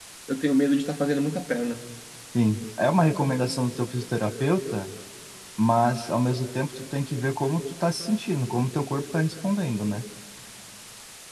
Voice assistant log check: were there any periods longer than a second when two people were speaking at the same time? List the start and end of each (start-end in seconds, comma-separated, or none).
none